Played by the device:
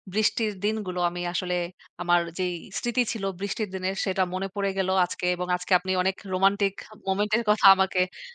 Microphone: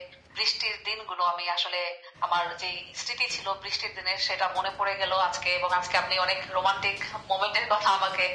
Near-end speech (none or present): none